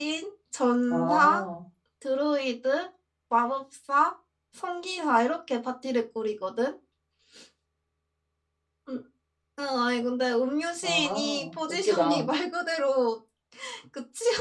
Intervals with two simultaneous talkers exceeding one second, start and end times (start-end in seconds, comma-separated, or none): 10.8-12.3